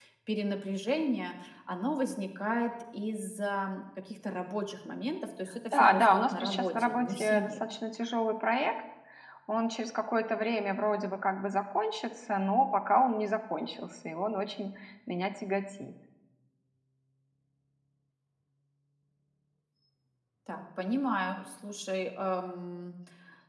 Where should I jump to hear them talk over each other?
6 s

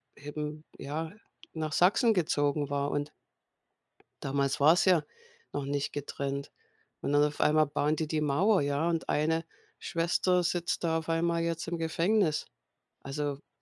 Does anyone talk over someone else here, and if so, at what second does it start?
none

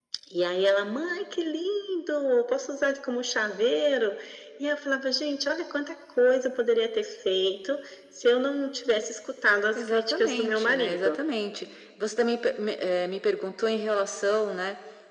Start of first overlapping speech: 10 s

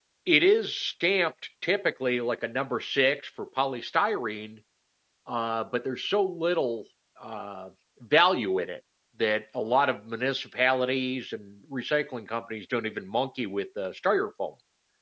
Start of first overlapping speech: none

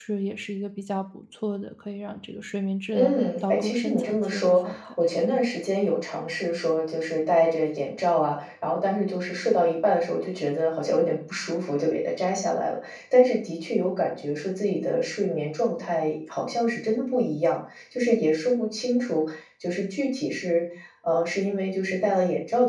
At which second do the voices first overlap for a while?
3 s

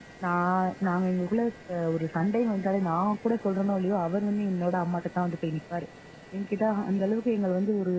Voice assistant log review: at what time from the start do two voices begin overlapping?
none

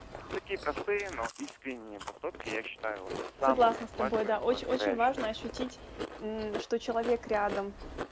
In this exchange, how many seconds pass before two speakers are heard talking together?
3 s

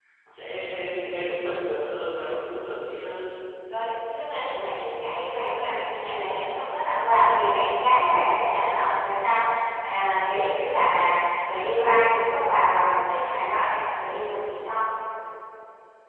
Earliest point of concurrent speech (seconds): none

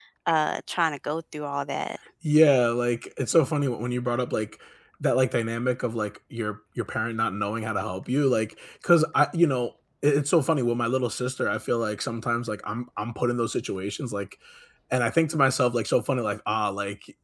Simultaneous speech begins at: none

